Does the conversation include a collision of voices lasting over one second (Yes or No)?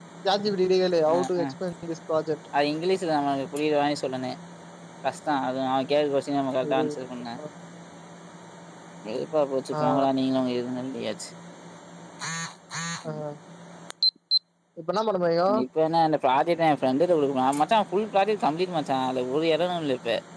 No